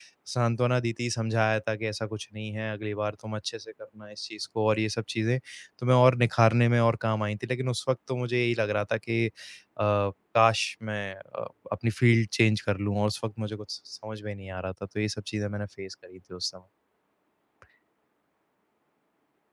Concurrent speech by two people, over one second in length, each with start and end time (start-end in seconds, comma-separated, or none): none